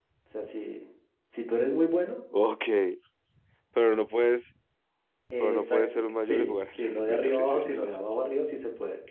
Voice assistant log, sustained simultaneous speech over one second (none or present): present